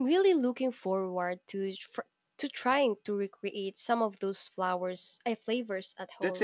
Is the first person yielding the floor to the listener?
Yes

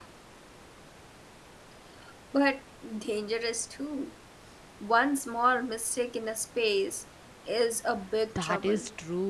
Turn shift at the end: Yes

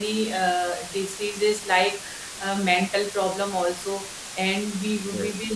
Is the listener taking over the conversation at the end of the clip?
No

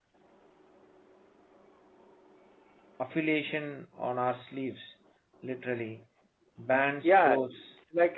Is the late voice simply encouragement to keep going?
No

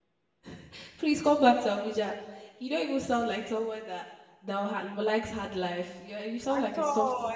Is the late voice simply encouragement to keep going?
No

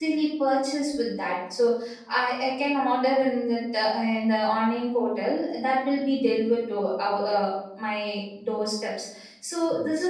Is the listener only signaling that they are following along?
Yes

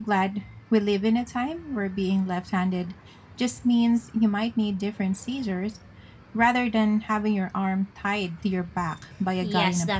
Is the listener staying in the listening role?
No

